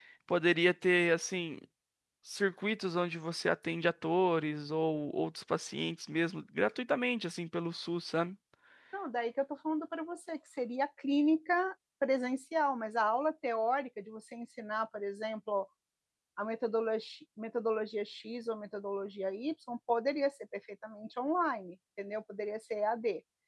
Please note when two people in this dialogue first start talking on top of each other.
none

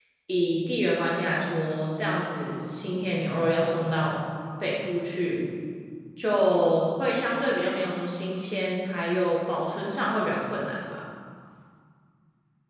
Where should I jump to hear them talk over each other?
none

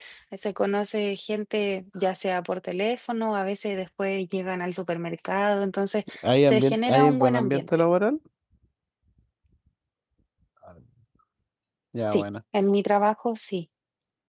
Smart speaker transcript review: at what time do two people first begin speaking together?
6.4 s

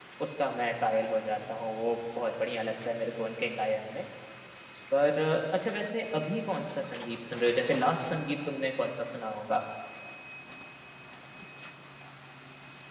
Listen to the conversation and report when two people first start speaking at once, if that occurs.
none

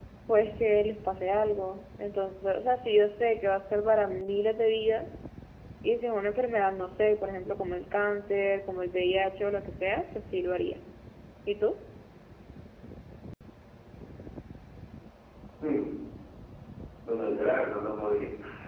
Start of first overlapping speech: none

